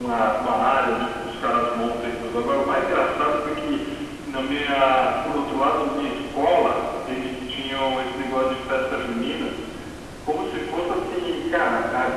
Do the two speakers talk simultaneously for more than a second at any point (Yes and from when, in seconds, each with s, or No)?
No